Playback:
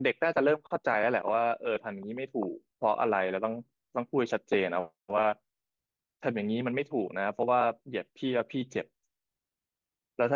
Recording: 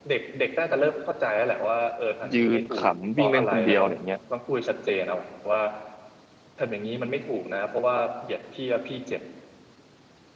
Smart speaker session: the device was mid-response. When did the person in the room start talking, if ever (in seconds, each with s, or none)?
2.3 s